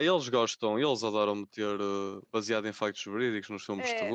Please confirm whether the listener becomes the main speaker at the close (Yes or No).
Yes